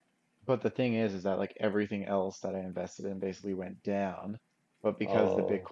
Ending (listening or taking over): listening